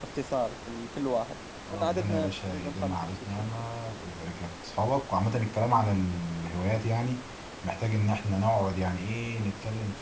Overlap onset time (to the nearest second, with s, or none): 2 s